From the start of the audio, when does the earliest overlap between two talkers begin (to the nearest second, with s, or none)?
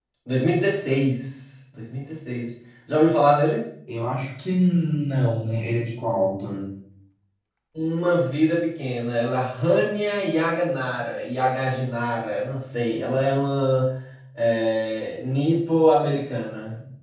none